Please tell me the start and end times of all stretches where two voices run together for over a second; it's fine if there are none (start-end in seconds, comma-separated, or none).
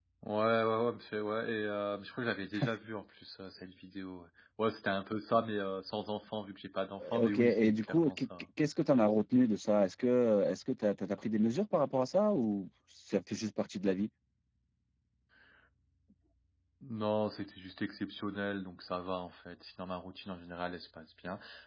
7.0-8.2